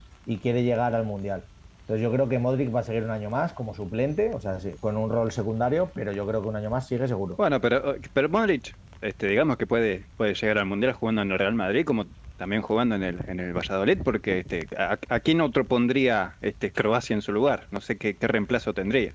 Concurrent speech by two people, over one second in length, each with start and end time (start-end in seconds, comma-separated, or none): none